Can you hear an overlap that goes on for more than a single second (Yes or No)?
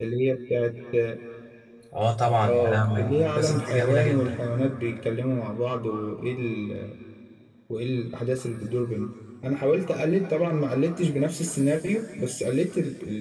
Yes